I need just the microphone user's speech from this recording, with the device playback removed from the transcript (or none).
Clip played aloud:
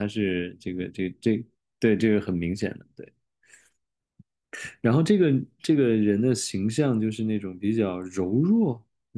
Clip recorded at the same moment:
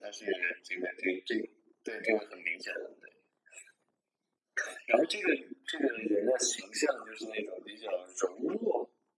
none